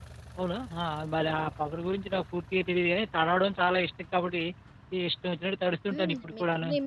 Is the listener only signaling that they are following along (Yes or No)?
No